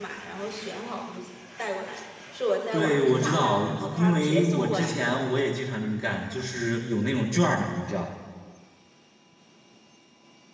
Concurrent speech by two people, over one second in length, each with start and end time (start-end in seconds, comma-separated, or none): 2.7-5.2